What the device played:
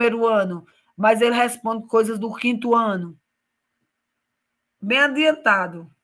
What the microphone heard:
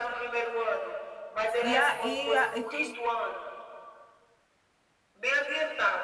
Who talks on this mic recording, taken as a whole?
both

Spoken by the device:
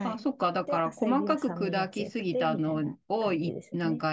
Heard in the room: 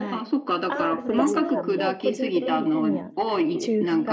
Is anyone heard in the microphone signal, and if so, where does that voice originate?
both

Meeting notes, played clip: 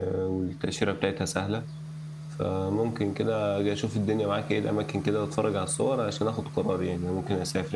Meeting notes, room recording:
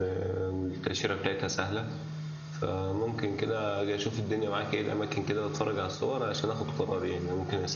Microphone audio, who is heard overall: echo only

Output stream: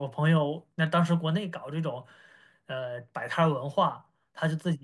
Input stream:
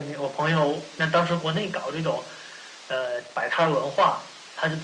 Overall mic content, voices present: echo only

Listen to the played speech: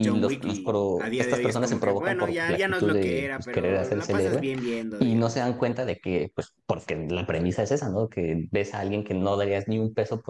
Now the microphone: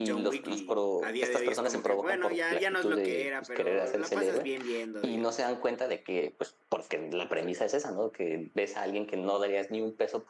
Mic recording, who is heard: echo only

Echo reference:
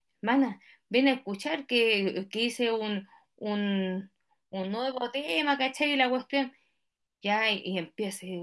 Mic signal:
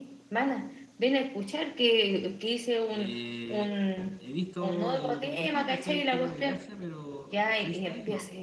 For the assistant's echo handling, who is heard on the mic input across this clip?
both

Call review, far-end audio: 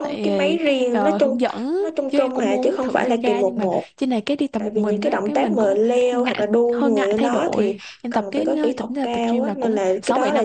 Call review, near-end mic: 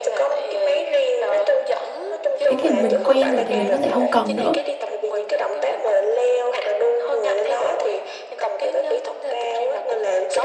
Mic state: both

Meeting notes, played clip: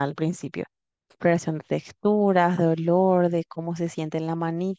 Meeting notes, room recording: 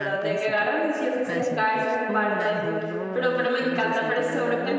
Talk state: both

